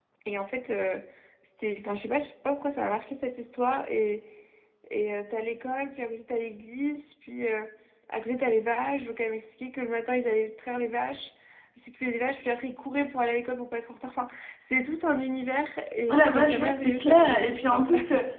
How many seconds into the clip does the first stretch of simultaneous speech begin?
16.1 s

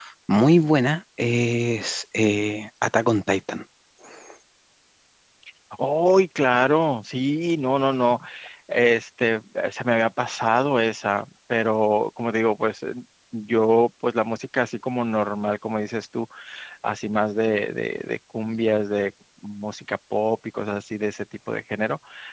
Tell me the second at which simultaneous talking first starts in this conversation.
none

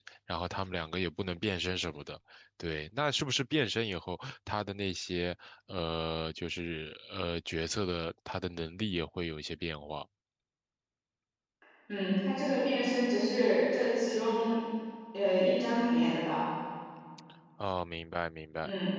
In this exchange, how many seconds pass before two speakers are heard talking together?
none

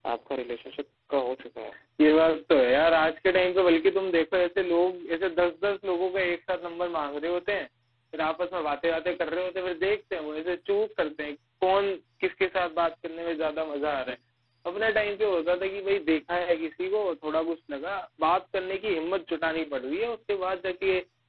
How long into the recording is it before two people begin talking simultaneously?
none

